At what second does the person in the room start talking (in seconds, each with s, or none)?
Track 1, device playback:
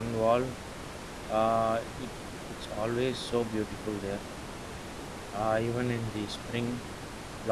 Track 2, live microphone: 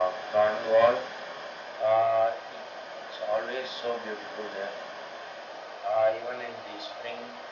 none